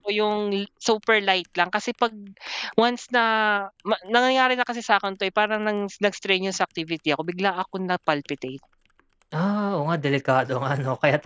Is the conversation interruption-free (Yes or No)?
Yes